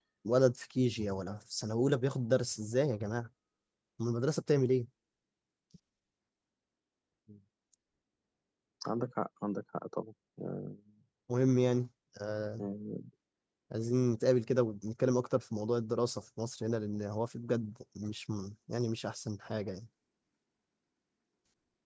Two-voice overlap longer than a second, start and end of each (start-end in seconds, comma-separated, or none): none